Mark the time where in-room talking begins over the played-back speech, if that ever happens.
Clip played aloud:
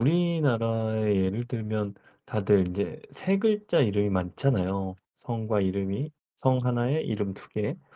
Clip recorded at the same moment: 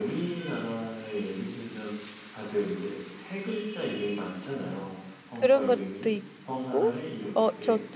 5 s

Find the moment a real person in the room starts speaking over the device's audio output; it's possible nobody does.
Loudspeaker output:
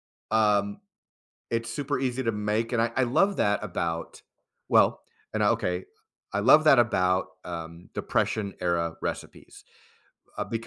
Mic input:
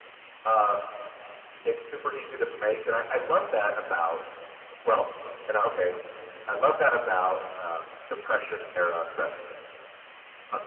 none

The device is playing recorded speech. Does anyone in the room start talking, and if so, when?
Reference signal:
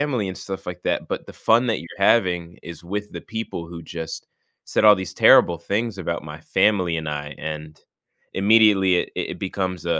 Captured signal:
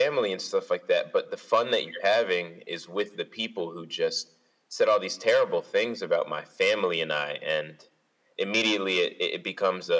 none

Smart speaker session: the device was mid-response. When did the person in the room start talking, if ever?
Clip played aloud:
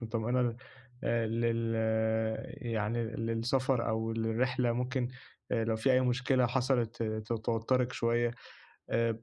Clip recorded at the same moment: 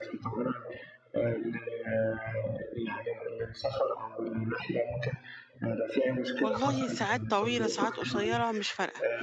6 s

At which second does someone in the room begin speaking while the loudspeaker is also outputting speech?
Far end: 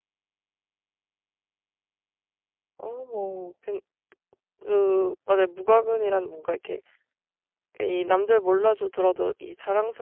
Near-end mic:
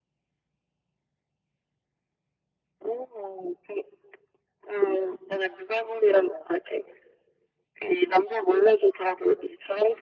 none

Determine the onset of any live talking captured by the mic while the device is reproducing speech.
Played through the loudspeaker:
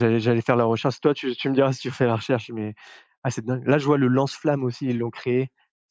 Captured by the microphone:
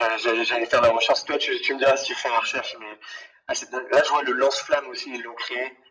none

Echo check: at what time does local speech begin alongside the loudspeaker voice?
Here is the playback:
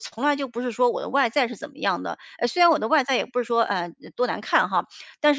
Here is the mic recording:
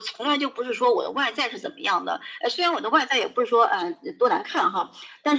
none

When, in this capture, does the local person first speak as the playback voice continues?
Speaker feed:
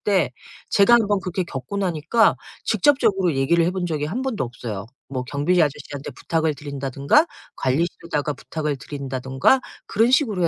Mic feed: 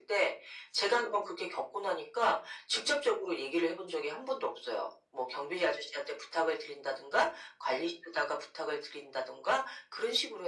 none

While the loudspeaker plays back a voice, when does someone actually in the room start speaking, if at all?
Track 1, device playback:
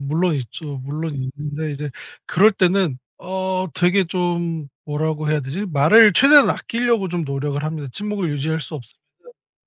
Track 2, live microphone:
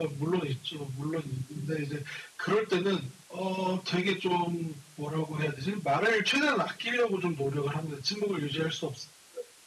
none

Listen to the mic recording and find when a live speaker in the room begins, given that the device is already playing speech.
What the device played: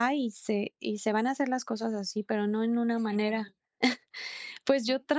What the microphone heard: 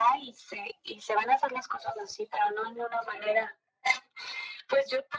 none

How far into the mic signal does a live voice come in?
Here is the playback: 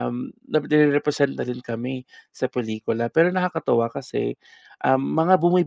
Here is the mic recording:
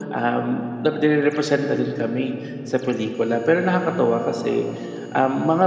none

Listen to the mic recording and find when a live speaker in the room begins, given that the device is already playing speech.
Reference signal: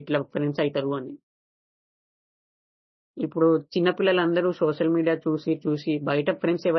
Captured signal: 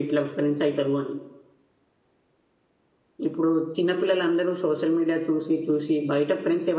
none

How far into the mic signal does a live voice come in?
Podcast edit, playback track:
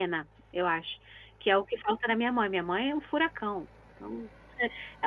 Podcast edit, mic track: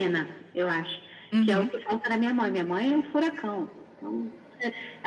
1 s

